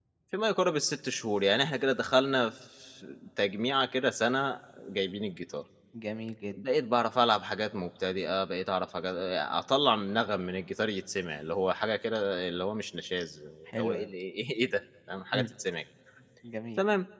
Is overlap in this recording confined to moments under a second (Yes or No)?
Yes